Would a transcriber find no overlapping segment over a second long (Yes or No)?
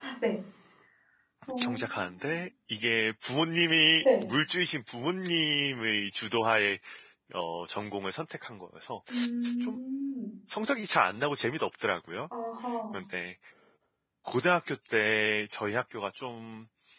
Yes